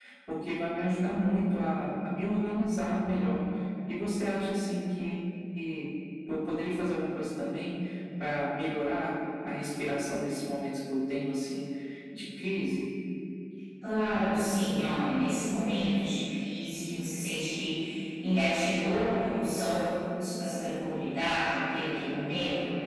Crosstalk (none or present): none